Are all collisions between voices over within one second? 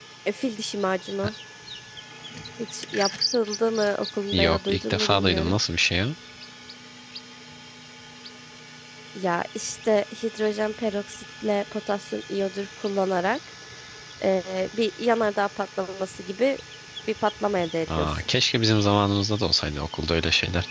No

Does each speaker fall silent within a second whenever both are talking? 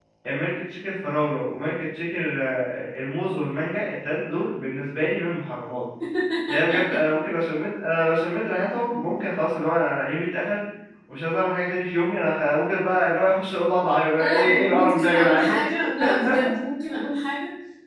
No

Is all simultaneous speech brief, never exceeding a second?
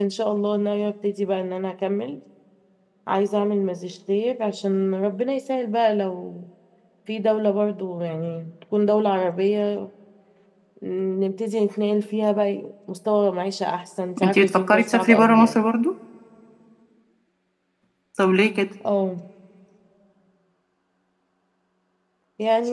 No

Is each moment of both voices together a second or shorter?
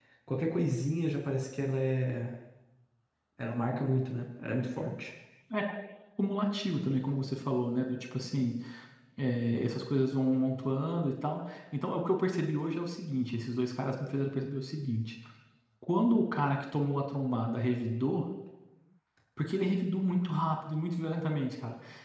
Yes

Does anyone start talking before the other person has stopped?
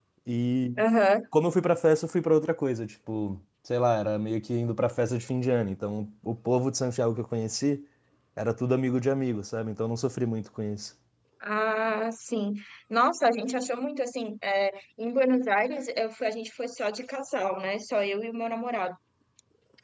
No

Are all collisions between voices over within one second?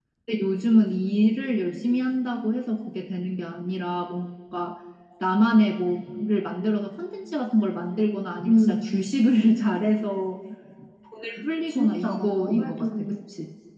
No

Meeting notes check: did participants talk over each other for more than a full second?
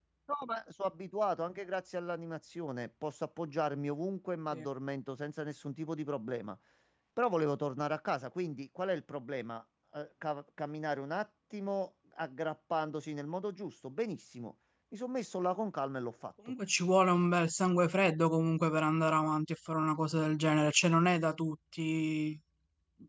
No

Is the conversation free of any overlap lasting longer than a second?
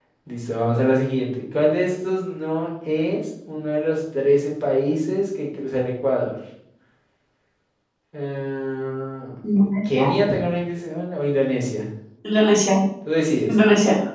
Yes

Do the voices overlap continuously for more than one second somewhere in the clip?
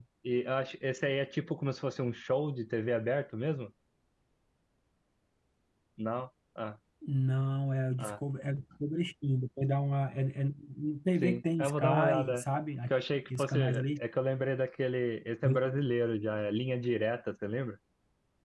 Yes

